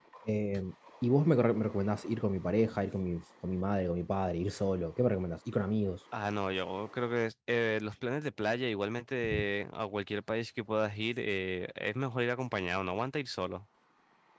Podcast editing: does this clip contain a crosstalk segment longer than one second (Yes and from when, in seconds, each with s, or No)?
No